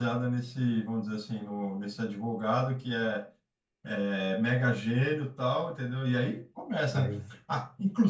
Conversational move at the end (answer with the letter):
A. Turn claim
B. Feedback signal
B